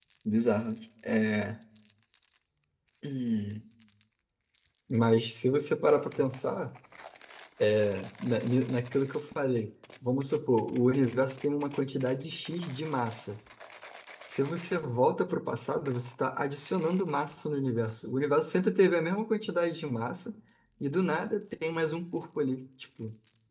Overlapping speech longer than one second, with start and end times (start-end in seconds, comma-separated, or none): none